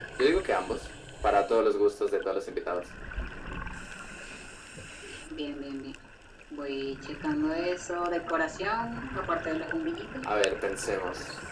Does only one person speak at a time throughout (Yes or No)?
Yes